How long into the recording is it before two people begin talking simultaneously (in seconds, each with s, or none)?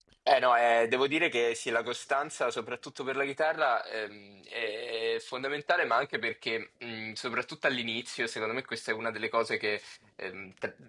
none